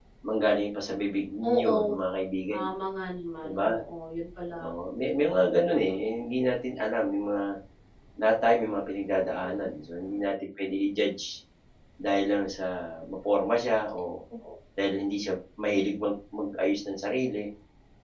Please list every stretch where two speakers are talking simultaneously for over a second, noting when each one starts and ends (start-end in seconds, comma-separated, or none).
none